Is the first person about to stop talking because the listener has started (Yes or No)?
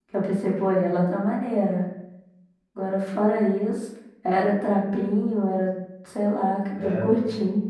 Yes